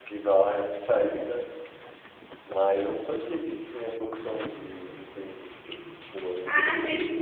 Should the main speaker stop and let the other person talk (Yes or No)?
Yes